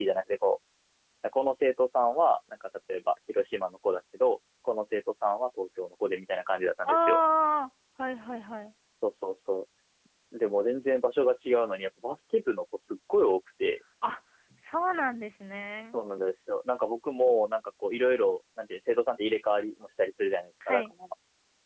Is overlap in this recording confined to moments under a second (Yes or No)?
Yes